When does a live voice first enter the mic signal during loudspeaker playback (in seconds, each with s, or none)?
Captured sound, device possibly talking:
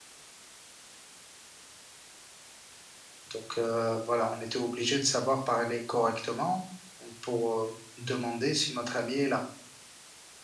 3.3 s